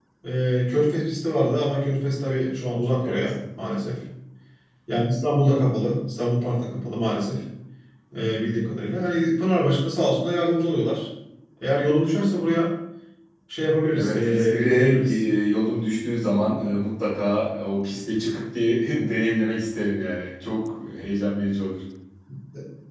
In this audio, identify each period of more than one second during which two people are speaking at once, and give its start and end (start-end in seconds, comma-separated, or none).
14.0-15.2